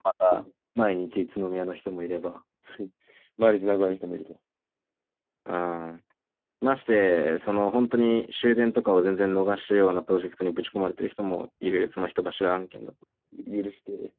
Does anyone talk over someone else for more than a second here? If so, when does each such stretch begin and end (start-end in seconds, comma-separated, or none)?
none